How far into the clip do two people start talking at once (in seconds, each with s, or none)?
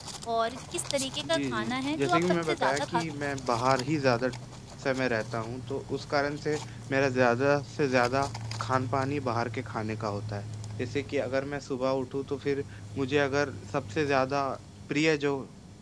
1.3 s